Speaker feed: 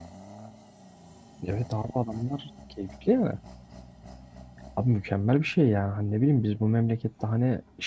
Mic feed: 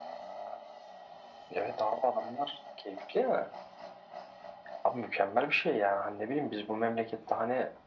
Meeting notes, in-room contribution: none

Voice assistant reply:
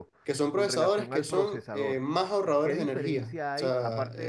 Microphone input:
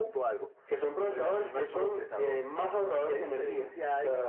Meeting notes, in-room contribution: none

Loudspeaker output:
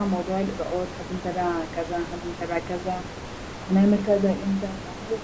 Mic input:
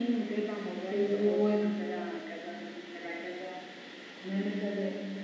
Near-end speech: present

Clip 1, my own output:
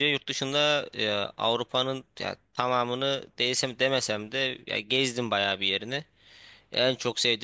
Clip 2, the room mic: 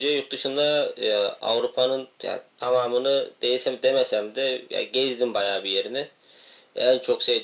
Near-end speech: none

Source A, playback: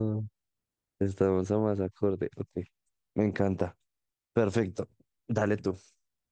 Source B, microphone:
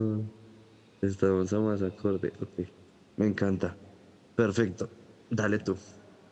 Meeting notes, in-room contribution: none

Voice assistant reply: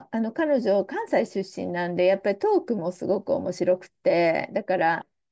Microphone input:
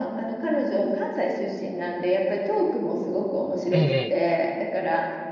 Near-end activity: present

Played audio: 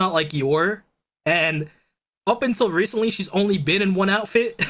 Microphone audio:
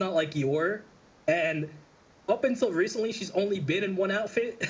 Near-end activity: none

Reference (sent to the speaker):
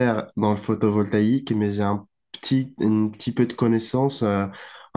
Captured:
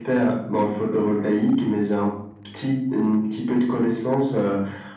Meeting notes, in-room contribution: none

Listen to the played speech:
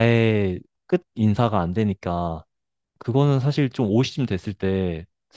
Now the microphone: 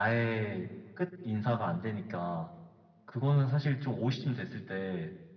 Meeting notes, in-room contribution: none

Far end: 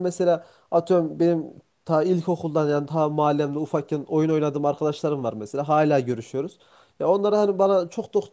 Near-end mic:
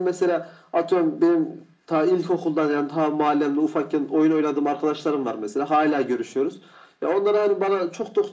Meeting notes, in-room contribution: none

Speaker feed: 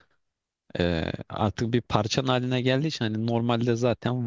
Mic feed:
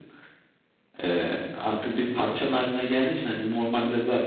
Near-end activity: none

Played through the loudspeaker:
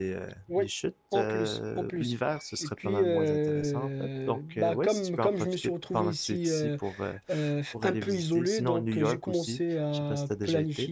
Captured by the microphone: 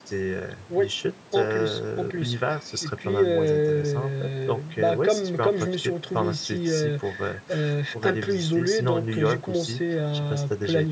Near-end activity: none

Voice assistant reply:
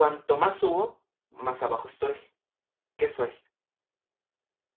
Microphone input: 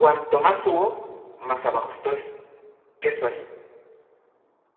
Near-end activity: none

